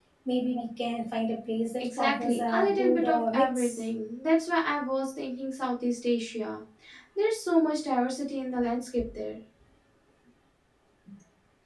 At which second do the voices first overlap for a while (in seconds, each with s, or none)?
1.8 s